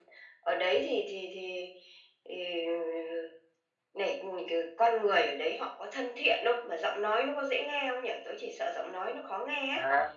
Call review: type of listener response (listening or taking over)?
taking over